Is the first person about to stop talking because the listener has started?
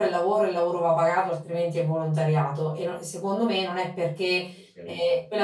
No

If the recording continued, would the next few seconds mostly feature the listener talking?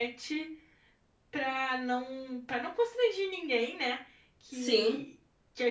No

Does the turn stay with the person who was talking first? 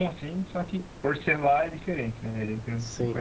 No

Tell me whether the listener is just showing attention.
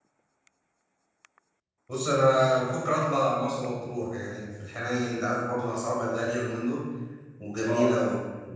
Yes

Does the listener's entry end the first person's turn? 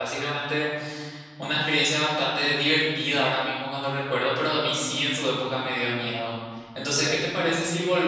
No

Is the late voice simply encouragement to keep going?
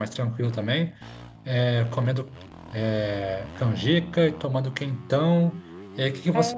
Yes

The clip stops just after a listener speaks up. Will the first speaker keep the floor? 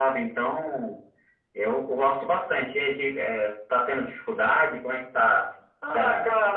No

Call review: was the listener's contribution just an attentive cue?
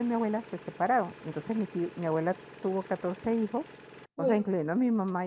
Yes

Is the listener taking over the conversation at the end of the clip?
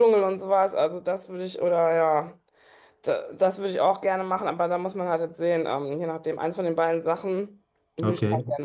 Yes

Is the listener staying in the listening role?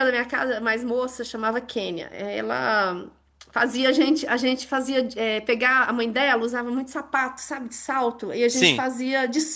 Yes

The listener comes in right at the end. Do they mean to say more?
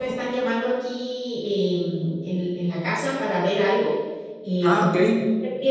No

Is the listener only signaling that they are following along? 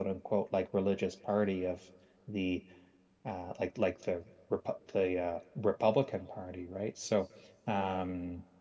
Yes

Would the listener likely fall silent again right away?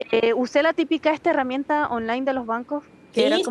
Yes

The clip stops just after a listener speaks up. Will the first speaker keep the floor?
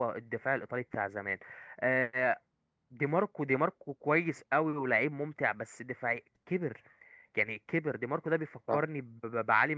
Yes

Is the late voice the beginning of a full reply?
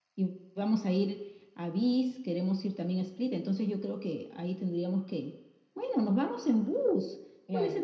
No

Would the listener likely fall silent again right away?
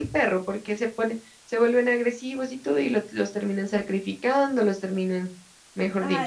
No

